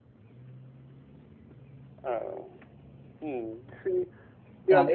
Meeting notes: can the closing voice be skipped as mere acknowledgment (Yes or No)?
No